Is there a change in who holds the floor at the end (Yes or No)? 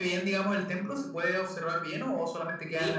Yes